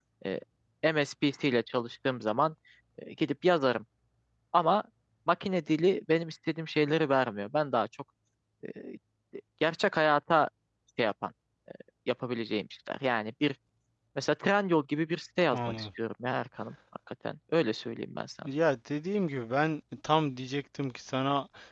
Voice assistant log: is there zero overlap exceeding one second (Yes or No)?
Yes